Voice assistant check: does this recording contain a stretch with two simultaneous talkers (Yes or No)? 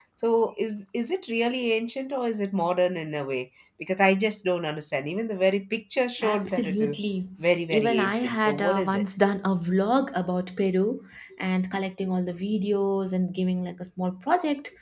Yes